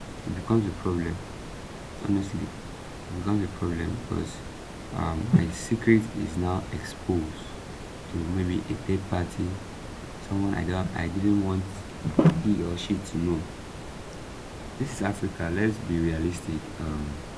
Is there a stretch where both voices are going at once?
No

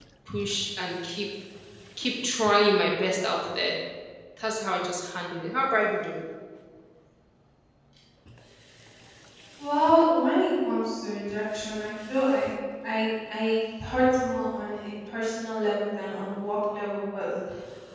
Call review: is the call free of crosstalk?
Yes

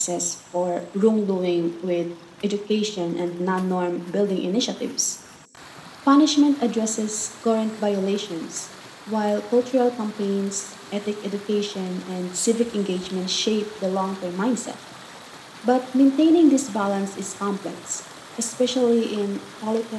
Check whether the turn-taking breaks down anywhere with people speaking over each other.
No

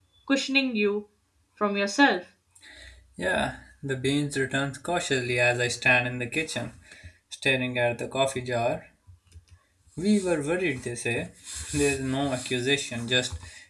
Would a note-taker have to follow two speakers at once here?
No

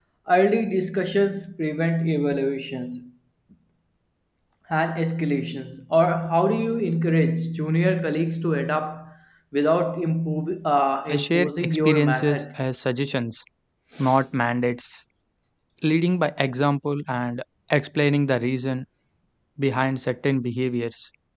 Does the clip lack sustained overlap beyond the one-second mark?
No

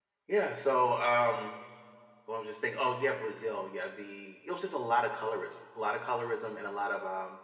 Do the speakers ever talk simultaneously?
No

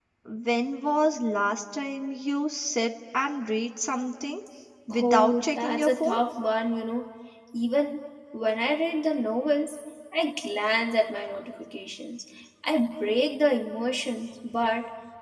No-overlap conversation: No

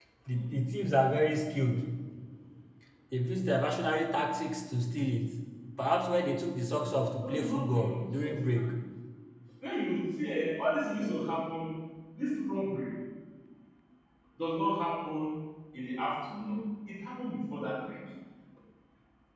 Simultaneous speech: Yes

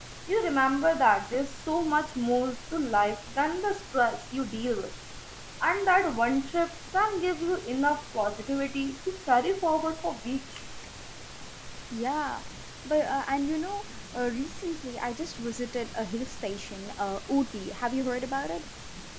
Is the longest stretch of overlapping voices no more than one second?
Yes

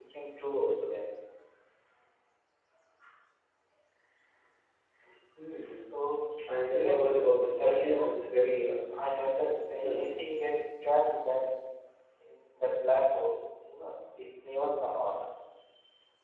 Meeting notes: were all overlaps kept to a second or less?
No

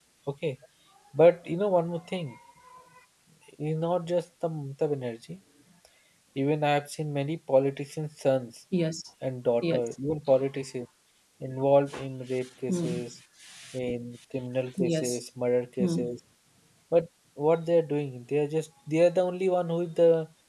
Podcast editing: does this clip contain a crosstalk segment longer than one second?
No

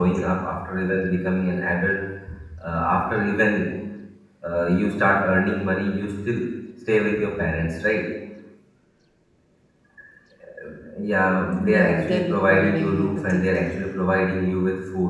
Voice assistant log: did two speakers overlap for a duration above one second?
Yes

